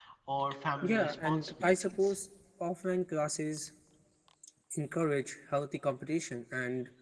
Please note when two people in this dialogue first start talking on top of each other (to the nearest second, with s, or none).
1 s